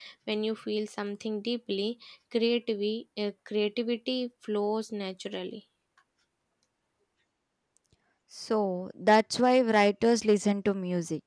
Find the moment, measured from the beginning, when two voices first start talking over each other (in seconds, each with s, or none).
none